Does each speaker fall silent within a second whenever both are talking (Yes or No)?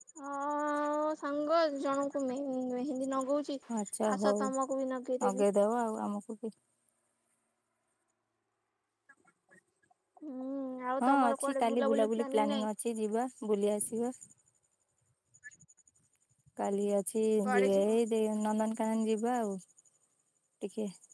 No